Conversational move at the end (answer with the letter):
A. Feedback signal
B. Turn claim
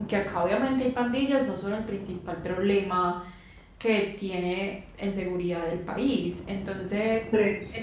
A